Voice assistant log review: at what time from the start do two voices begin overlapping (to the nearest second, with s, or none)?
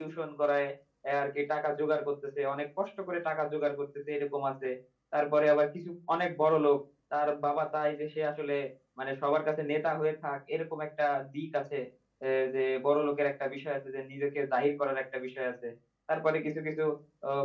none